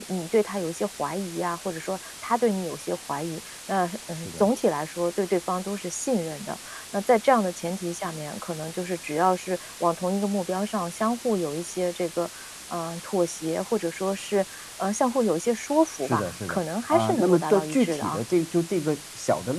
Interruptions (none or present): present